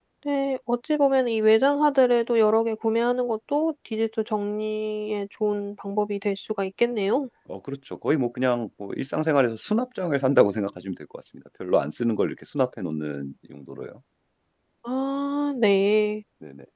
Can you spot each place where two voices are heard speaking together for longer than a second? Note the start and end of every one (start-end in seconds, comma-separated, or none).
none